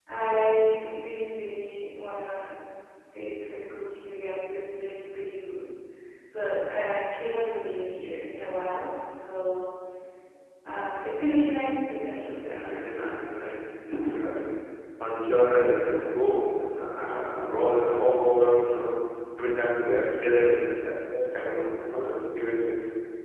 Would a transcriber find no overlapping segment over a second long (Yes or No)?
Yes